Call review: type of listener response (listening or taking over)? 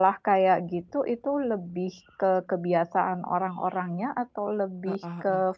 listening